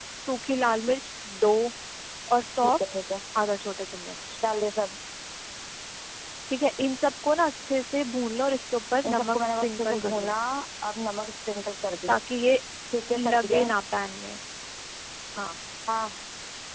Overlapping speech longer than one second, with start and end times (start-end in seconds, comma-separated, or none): 9.0-10.4